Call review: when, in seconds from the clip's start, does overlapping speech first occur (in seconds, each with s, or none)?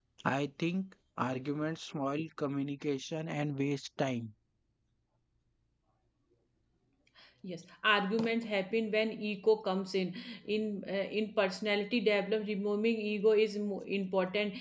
none